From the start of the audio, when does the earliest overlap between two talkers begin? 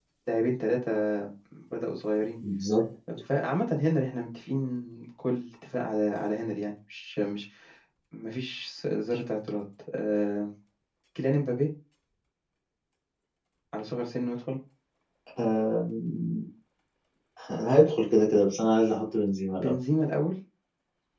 none

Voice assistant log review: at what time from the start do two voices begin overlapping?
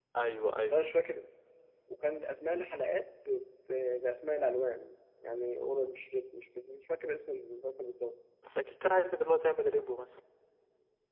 none

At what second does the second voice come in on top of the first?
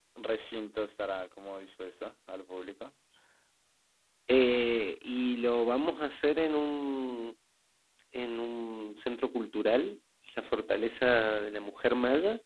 none

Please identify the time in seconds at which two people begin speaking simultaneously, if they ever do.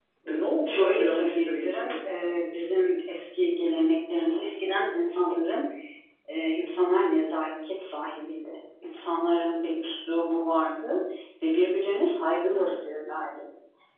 0.6 s

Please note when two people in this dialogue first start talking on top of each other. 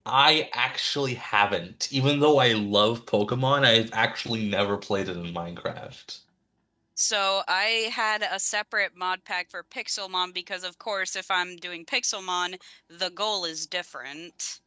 none

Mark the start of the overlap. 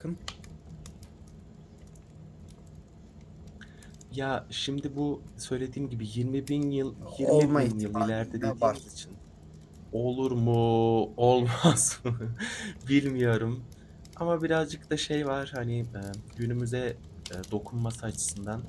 7.3 s

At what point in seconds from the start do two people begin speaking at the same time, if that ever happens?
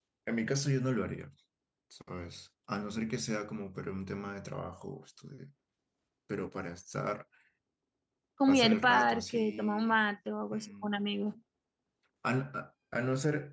8.5 s

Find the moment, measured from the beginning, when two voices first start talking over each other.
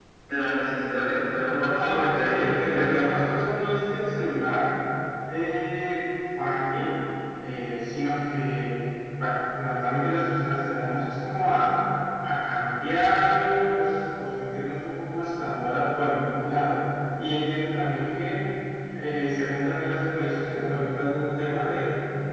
1.6 s

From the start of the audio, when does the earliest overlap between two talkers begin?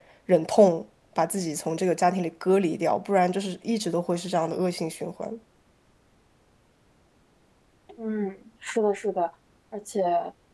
none

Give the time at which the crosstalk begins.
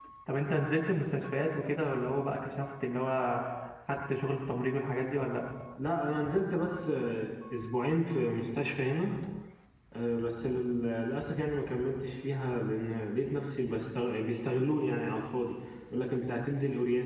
none

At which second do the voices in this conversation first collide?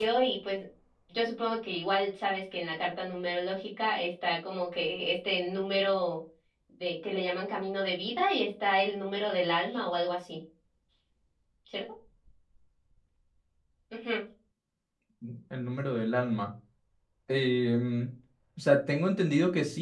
none

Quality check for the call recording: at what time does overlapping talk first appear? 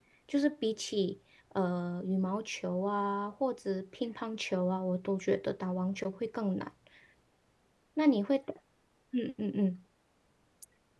none

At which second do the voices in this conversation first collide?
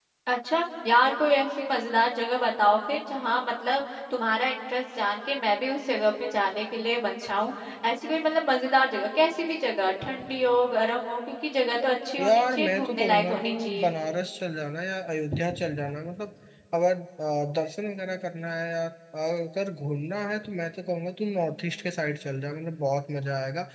12.2 s

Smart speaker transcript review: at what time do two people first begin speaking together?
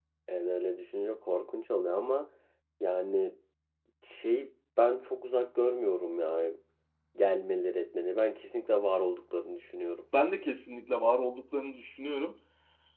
none

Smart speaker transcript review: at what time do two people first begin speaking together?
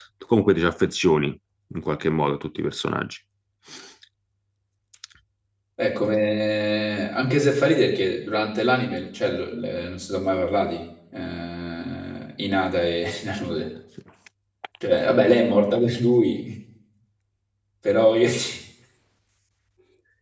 none

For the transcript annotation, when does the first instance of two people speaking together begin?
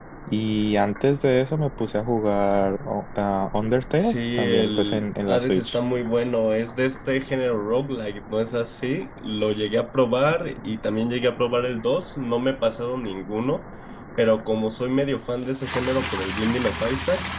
4.0 s

